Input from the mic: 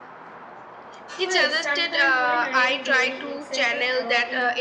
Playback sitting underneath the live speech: No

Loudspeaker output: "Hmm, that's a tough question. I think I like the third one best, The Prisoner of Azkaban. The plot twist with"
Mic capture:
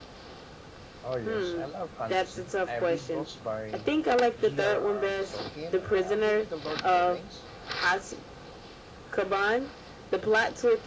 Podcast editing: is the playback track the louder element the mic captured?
Yes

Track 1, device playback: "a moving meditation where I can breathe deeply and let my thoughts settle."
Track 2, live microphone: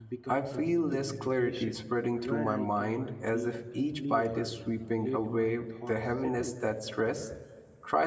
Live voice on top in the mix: Yes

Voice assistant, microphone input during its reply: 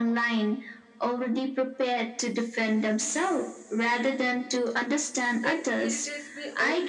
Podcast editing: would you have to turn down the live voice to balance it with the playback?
No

